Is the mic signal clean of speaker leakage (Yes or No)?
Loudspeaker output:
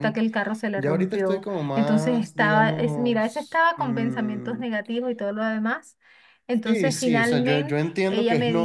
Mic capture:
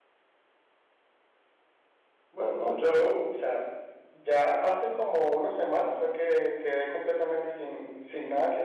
Yes